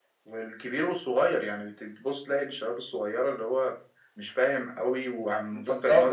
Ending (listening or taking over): taking over